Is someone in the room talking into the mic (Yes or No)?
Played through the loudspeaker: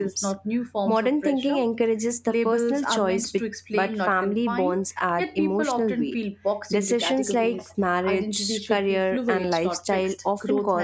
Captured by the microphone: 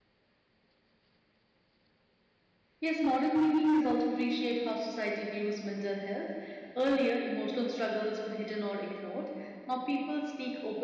Yes